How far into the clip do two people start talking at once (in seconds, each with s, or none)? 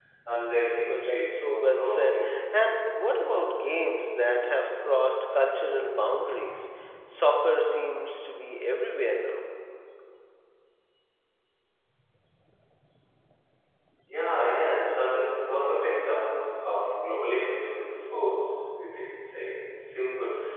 0.8 s